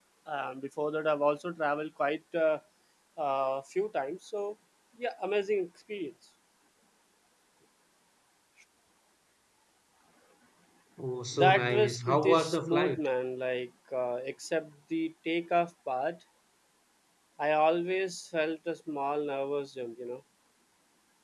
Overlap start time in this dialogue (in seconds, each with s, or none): 11.3 s